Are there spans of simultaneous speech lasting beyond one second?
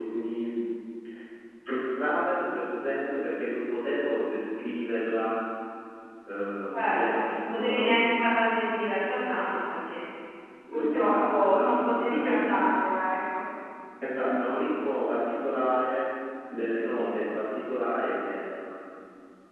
Yes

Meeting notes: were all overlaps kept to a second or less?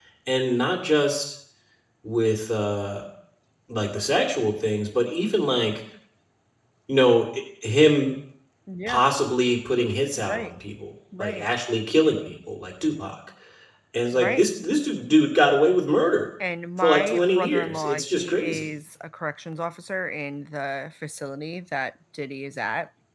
No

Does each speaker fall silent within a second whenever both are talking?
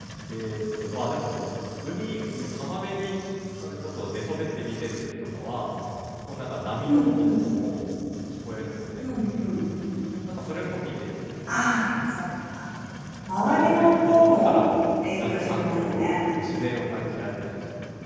No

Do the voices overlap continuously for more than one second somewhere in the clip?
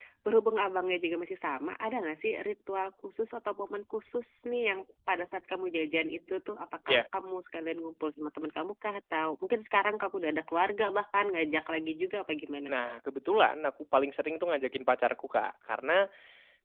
No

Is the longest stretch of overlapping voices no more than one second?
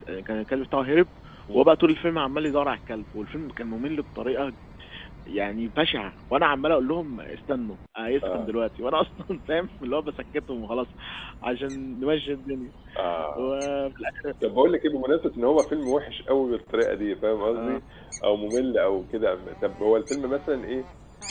Yes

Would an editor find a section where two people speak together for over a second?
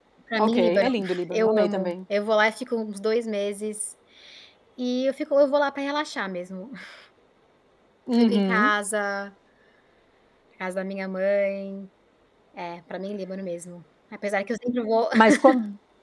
Yes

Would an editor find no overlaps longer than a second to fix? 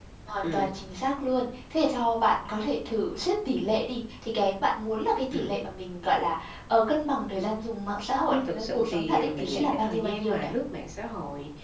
No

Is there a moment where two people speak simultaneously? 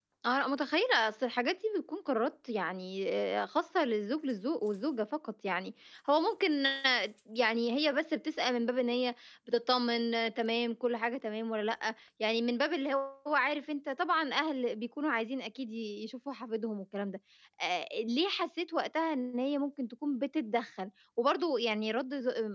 No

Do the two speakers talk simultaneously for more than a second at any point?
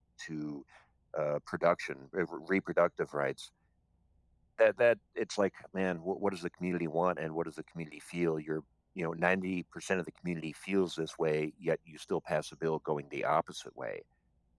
No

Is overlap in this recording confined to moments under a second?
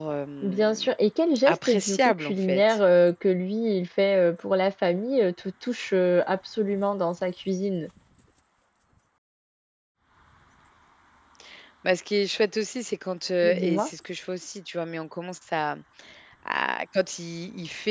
No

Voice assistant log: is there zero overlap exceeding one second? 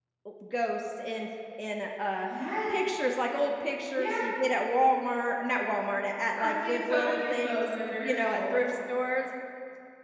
No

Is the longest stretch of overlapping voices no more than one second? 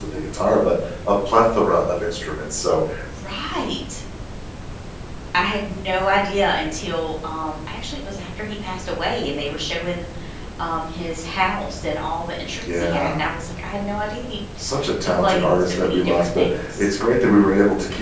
No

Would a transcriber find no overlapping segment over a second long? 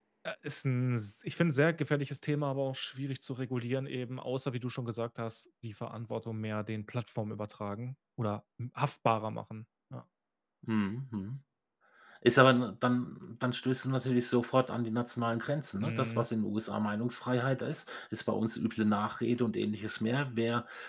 Yes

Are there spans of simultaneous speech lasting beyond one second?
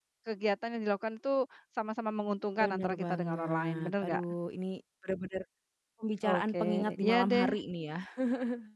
Yes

